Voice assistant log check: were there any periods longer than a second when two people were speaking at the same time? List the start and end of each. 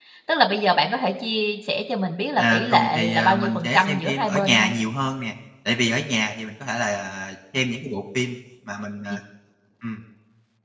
2.4-4.7

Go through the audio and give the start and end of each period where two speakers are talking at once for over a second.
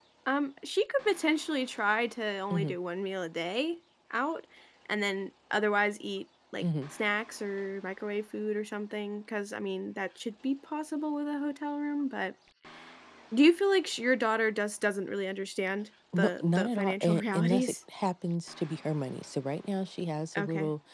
16.2-17.7

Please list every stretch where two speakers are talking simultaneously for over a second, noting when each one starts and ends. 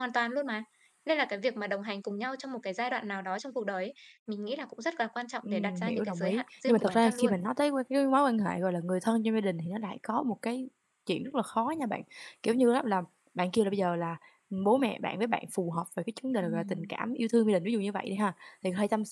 5.4-7.3

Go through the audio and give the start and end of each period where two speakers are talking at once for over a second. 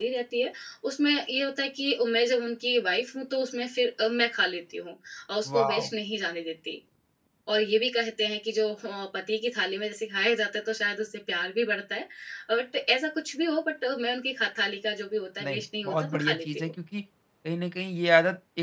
15.4-16.7

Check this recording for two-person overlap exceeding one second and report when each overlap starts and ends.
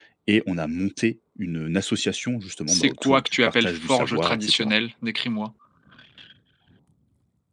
2.7-4.7

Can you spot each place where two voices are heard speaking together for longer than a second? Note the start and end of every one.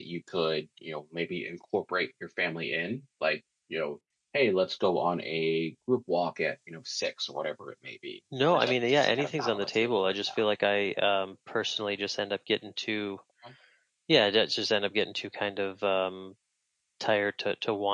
8.5-10.4

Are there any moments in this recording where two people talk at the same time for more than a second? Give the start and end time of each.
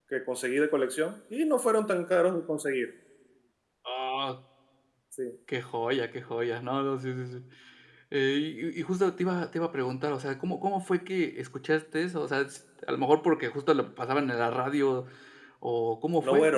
none

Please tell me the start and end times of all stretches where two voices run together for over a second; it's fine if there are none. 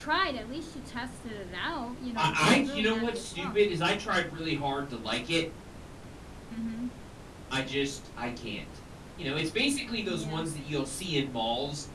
2.2-3.6

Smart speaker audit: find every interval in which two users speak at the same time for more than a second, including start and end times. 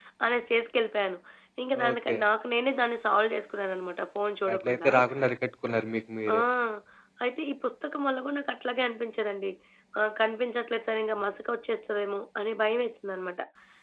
none

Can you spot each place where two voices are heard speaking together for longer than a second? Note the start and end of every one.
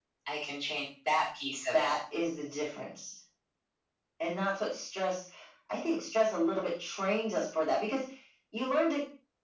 none

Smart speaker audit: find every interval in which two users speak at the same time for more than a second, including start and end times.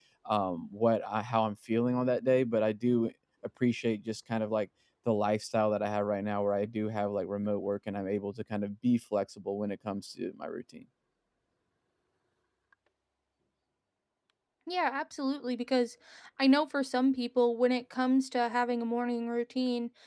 none

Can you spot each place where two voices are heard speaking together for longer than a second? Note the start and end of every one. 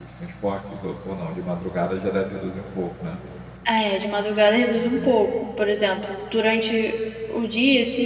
none

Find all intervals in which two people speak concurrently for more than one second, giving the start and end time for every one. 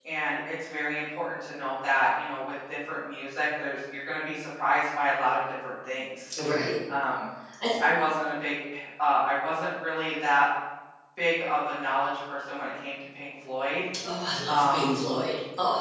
none

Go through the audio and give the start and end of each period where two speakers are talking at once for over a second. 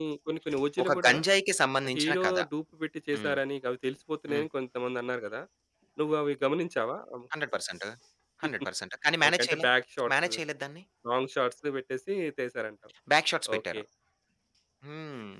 none

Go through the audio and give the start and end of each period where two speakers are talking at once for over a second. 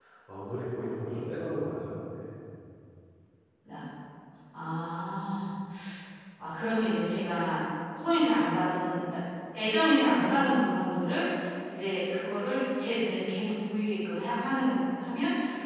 none

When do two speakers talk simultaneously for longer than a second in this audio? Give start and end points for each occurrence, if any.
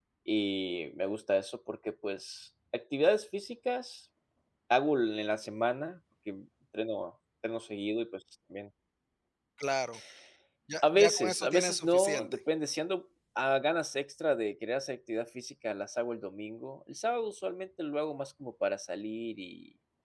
10.8-12.4

